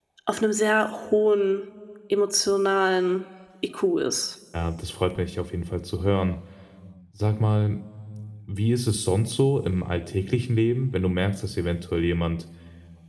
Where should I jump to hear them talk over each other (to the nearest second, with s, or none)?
none